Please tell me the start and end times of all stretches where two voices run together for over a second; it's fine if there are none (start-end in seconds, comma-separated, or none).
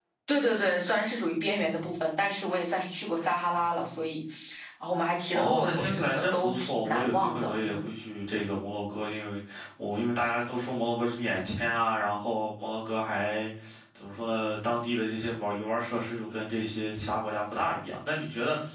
5.3-7.8